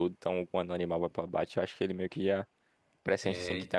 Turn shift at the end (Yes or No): No